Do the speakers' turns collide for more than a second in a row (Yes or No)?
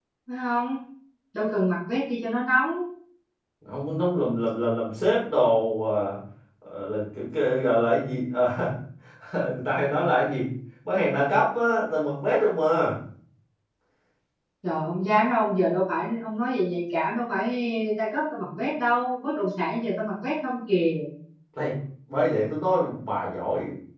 No